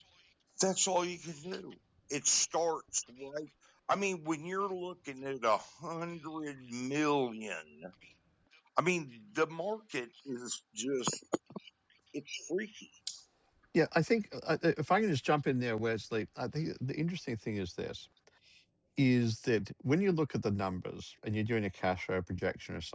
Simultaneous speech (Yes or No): No